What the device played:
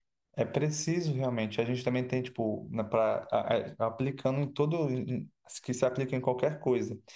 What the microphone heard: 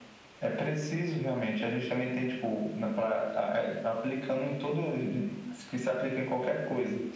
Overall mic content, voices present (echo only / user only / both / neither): echo only